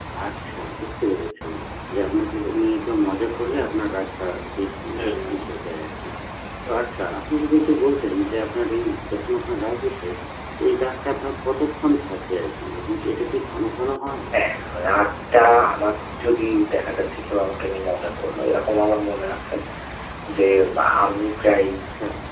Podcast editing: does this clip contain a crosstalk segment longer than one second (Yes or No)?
No